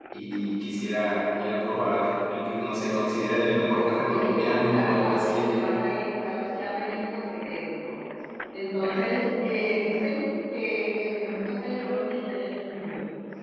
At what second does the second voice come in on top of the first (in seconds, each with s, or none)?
3.4 s